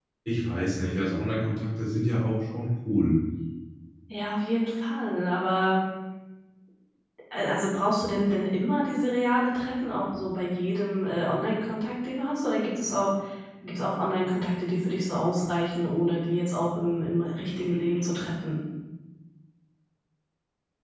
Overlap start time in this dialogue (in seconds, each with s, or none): none